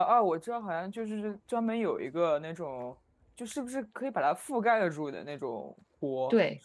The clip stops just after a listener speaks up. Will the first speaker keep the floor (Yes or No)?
No